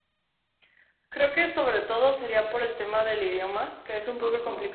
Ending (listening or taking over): listening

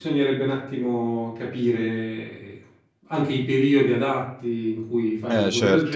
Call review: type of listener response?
taking over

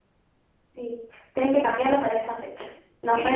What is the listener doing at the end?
taking over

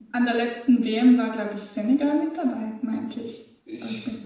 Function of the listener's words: taking over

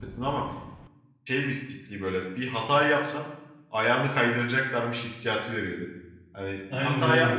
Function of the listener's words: listening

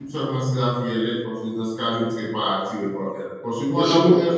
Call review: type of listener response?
listening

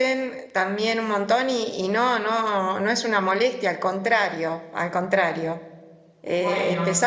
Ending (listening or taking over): listening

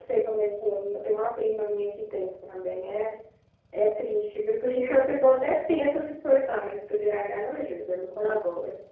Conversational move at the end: taking over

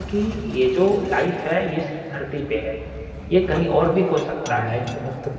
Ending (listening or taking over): taking over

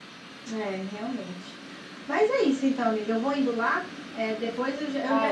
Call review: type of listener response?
listening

